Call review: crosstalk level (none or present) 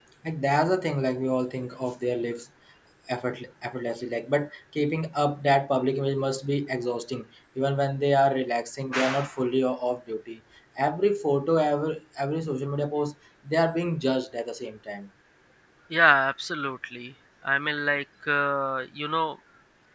none